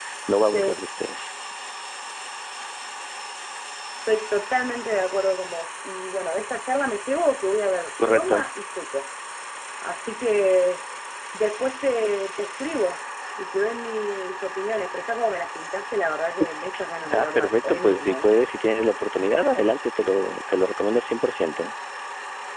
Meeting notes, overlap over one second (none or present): present